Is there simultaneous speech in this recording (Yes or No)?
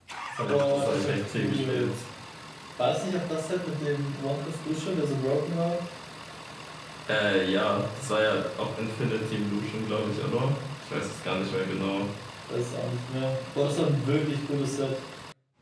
Yes